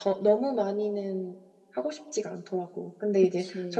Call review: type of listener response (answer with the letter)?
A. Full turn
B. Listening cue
B